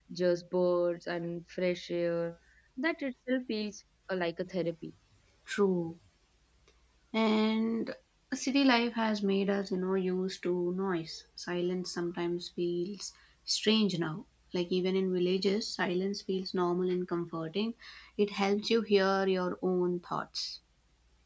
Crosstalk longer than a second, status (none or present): none